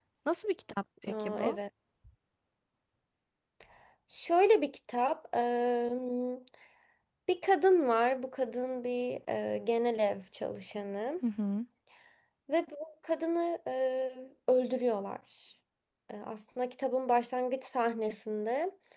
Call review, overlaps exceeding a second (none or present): none